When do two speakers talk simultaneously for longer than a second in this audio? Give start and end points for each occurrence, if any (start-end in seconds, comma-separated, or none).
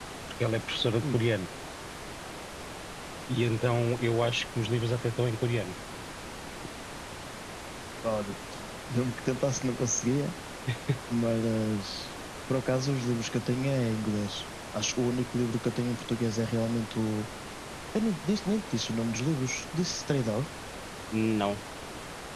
none